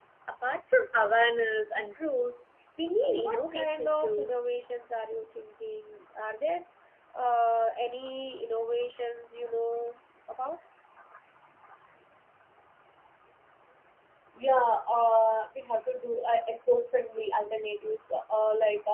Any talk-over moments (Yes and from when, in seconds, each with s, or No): Yes, from 3.0 s